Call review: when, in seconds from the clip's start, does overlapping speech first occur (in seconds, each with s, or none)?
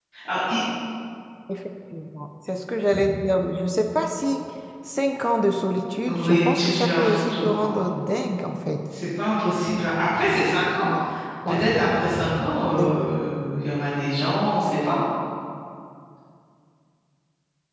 6.1 s